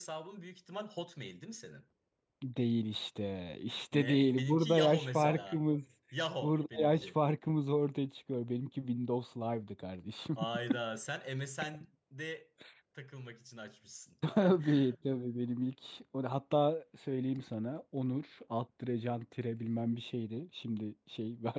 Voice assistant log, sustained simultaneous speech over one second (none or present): present